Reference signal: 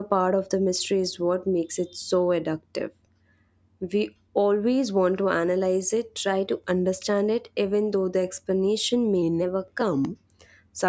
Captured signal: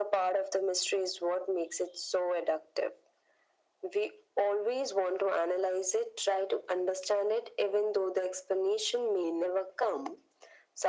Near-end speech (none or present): none